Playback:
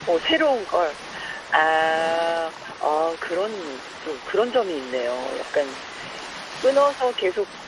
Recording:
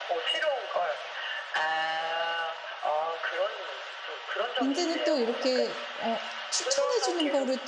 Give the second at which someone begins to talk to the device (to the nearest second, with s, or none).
5 s